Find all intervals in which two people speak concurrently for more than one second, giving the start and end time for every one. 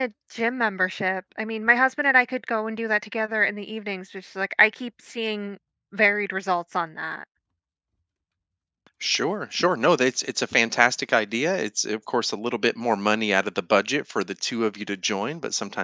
none

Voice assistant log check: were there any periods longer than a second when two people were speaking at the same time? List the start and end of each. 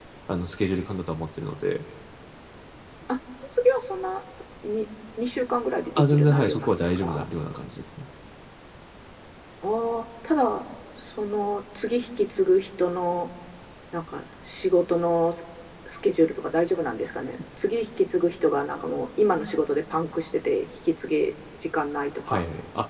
6.0-7.2

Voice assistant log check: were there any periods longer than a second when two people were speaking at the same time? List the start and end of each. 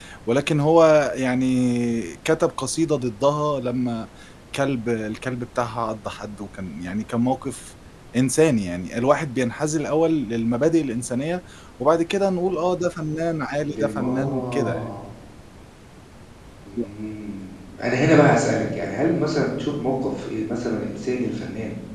13.7-14.9

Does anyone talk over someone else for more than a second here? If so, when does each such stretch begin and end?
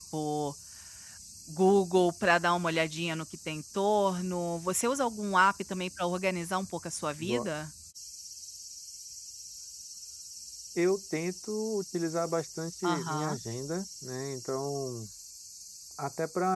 none

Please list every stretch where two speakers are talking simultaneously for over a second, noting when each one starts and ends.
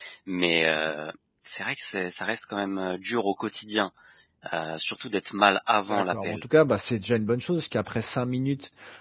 none

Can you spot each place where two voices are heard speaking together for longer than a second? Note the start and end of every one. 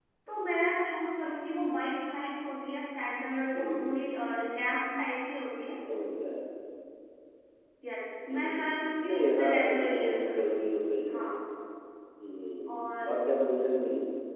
9.1-10.5

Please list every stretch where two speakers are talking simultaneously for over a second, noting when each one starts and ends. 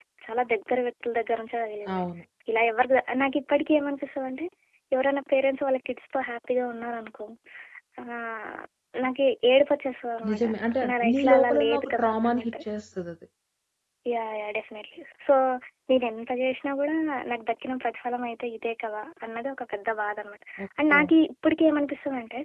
10.9-12.5

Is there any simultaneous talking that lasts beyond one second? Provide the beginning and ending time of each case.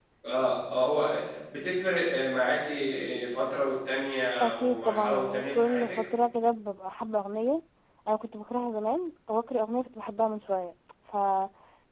4.4-6.0

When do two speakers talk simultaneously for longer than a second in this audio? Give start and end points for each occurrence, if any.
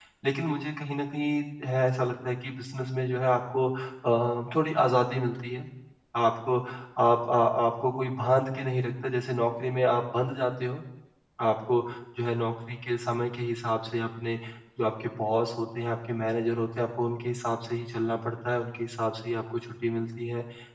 none

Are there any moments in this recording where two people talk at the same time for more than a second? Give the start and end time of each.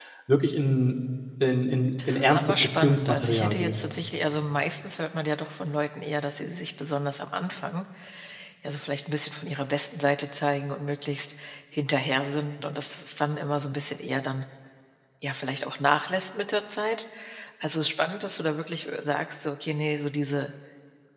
2.1-3.7

